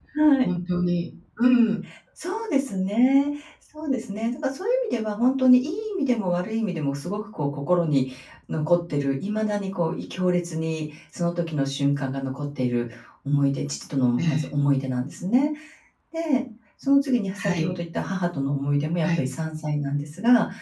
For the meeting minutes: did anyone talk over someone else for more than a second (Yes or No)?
No